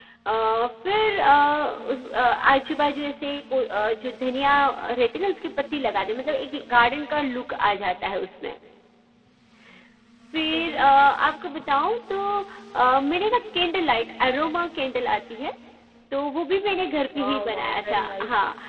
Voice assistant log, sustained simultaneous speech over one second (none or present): present